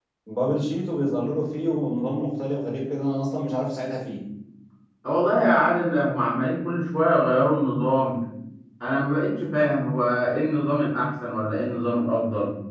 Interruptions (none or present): none